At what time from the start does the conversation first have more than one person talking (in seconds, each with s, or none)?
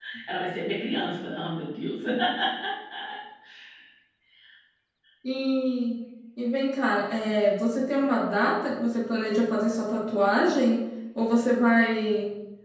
none